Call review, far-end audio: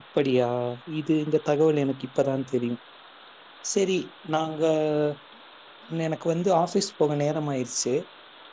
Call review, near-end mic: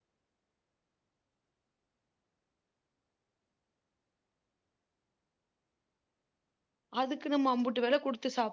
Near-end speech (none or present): present